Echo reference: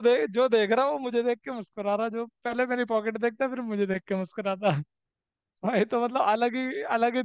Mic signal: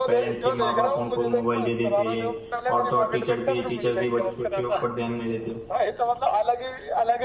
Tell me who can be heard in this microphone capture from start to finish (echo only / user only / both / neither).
both